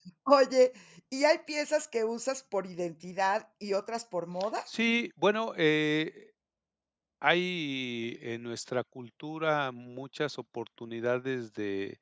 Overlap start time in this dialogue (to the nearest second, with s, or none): none